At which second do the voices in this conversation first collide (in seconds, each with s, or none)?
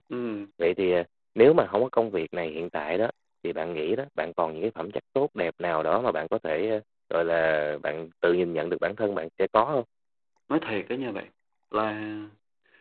none